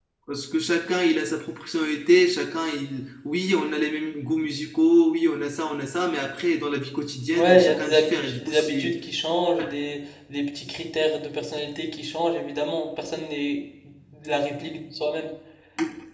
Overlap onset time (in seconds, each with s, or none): 7.3 s